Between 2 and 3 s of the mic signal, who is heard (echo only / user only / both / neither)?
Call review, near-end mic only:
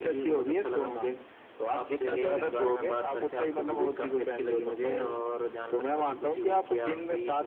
both